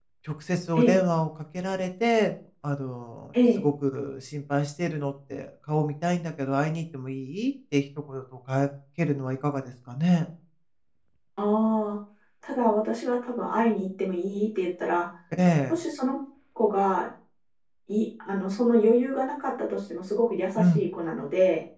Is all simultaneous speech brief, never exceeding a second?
Yes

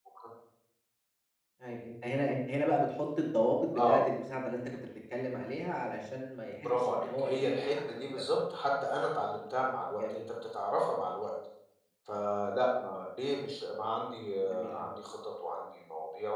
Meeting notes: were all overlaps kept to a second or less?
No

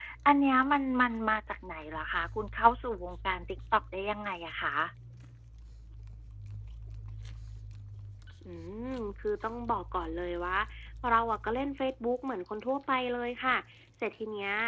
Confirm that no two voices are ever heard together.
Yes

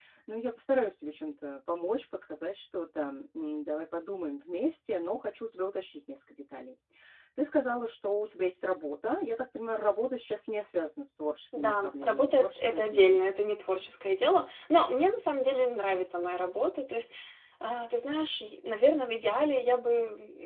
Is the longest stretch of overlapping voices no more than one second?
No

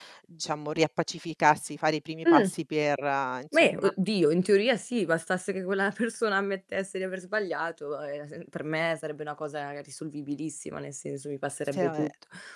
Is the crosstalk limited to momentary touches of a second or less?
Yes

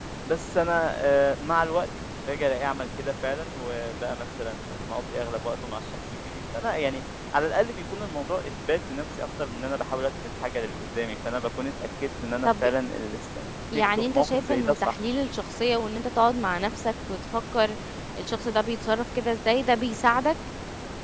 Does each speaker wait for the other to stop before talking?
No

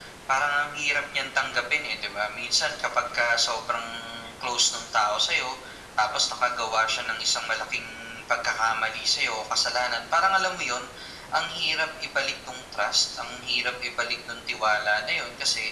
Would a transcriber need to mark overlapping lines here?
No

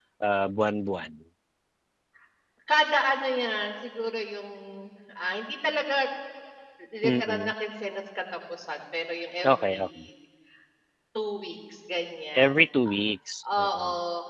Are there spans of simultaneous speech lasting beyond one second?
No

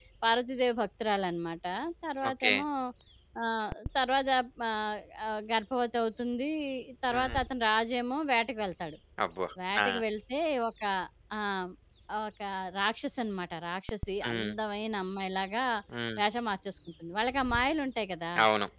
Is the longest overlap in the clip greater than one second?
No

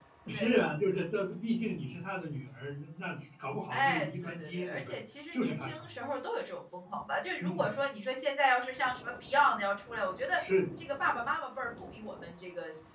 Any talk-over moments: Yes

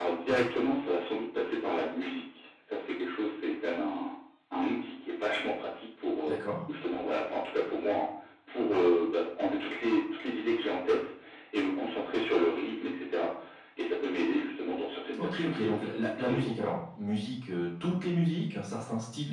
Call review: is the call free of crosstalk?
No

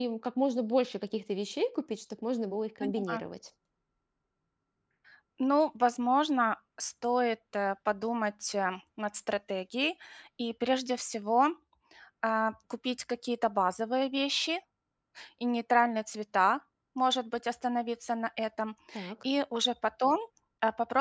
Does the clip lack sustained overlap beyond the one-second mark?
Yes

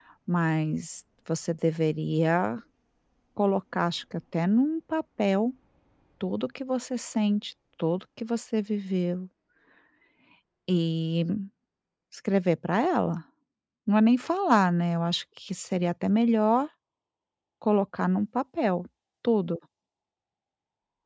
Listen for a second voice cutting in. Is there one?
No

